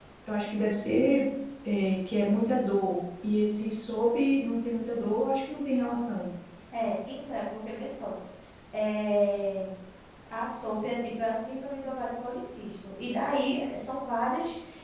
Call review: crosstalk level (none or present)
none